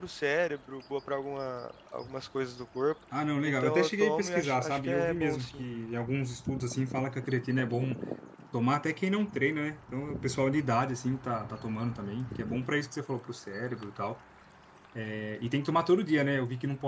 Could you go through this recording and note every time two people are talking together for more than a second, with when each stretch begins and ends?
3.4-5.7

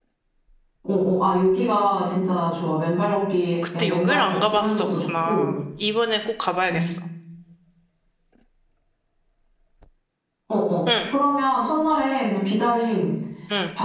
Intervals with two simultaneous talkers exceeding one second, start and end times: 3.8-5.5

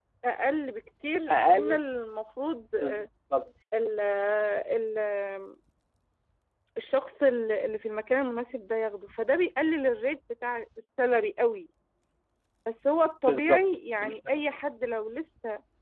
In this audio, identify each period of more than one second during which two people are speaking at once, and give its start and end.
13.3-14.5

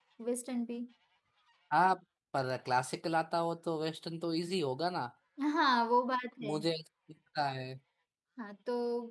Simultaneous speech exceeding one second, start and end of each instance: none

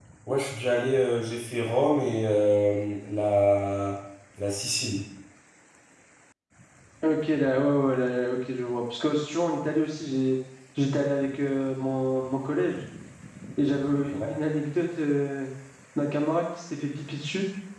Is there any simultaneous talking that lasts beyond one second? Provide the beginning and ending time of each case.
none

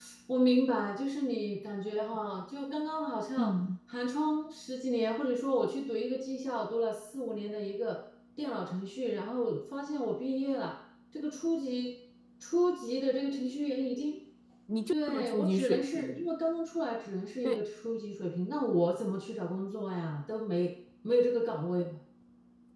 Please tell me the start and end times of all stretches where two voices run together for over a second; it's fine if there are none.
14.9-16.3

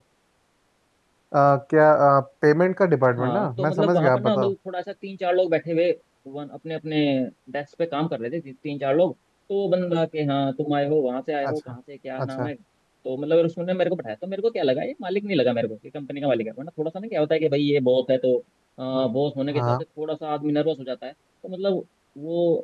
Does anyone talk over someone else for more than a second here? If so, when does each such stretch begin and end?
3.2-4.5

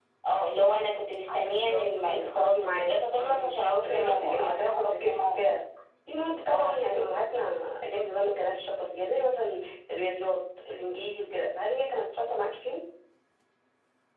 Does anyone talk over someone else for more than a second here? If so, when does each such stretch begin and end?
1.2-5.5

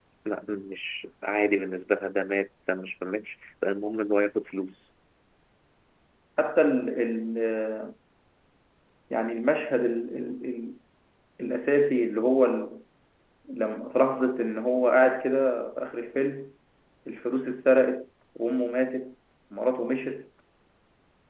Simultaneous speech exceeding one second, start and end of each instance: none

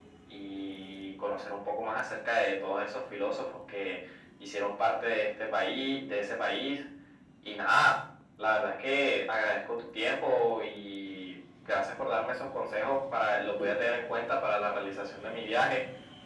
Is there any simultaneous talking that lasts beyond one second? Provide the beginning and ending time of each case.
none

